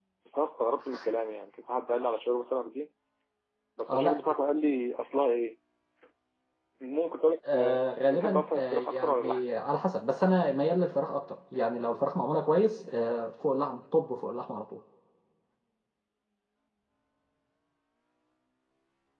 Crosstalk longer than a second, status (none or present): present